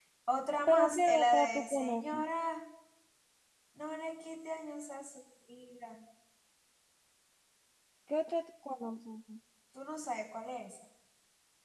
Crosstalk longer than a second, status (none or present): present